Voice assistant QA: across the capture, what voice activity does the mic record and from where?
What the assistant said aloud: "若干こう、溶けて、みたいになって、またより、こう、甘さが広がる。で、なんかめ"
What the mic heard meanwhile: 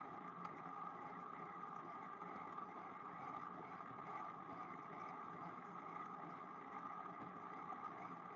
neither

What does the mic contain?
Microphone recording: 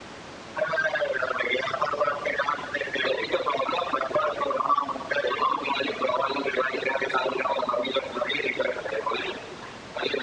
echo only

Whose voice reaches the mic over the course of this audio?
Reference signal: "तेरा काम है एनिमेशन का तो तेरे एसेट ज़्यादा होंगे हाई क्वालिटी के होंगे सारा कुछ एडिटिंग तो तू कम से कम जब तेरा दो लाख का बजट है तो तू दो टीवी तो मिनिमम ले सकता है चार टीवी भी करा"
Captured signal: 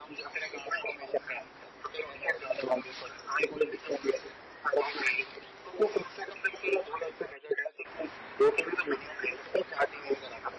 echo only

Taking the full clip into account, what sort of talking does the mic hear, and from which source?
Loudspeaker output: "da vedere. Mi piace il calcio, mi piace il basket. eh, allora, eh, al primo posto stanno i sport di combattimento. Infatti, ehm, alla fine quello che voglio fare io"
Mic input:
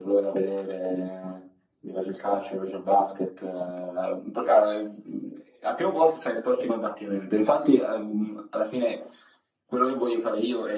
echo only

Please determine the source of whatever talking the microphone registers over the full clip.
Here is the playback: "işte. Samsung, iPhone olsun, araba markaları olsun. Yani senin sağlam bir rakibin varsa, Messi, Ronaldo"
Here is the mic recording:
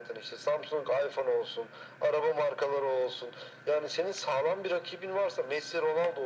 echo only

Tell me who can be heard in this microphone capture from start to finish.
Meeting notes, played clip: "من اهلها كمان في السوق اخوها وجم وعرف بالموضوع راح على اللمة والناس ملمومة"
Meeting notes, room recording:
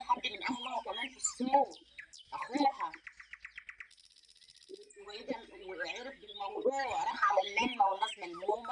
echo only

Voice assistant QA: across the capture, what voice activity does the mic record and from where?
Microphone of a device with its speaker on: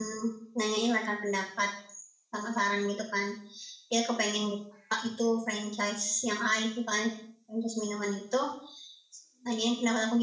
user only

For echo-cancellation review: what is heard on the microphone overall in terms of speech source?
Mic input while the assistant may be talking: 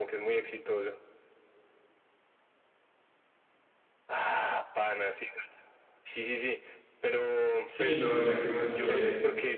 both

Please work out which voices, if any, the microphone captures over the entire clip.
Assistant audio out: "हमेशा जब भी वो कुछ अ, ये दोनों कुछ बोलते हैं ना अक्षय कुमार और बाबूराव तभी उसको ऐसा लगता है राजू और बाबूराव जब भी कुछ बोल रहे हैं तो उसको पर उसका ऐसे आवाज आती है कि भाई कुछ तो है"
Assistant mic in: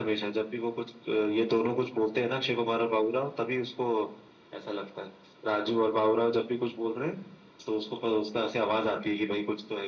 echo only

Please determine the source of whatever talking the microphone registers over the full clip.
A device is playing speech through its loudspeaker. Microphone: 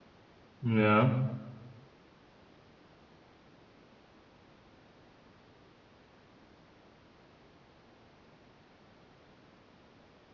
user only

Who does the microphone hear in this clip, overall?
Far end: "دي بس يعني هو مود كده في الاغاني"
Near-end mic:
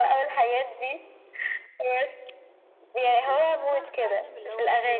both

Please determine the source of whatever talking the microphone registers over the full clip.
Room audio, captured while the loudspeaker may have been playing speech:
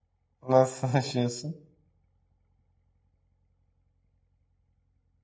user only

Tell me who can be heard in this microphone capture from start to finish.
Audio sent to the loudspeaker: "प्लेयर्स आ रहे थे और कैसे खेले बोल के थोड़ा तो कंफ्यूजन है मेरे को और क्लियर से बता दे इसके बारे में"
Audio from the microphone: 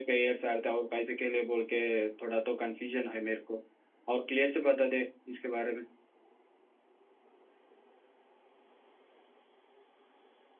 echo only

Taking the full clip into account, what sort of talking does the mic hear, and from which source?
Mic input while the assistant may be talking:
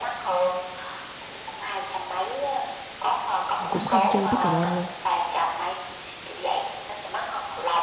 both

